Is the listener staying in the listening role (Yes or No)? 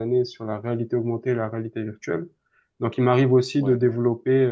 Yes